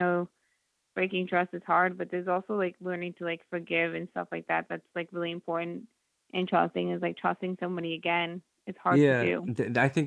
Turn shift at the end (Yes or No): Yes